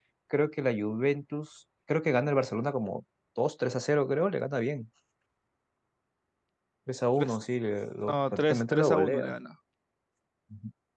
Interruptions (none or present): present